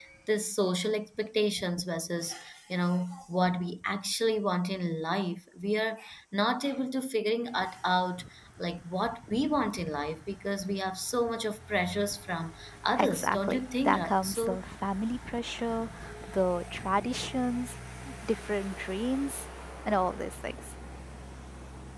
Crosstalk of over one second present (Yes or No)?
Yes